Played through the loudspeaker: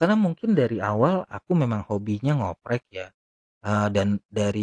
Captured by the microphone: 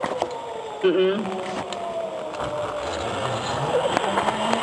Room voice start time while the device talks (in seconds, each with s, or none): 0.8 s